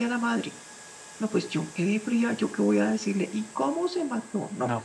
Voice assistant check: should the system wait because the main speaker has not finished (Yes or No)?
No